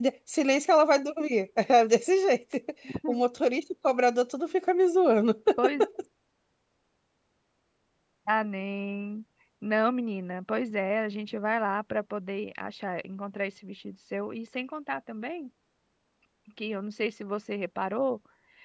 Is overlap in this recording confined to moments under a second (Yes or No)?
Yes